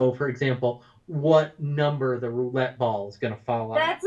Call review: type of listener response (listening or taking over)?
taking over